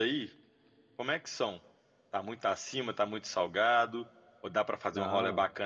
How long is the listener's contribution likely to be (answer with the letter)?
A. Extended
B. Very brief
B